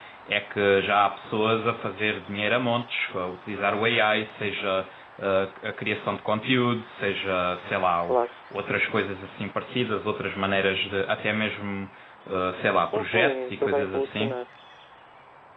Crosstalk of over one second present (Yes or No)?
Yes